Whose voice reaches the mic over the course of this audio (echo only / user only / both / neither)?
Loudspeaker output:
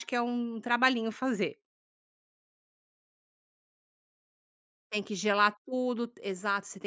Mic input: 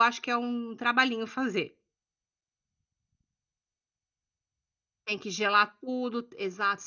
echo only